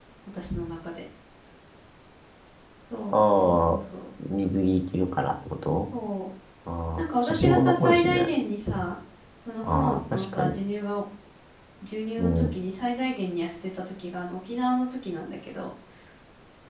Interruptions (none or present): present